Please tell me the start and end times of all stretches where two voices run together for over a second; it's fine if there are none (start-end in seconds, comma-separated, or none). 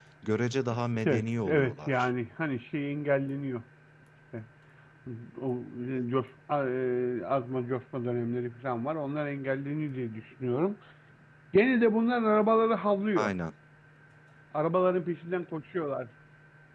0.7-2.1